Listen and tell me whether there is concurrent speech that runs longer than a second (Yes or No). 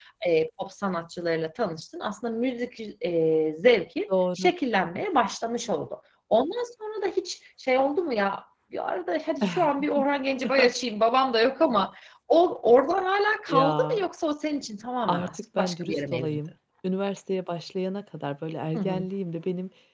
Yes